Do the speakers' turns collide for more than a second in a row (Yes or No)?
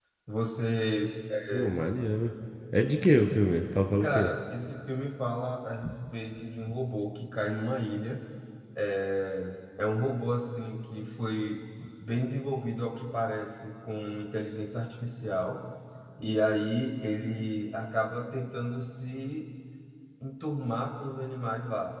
No